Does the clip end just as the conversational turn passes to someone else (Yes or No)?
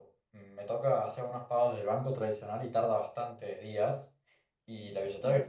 No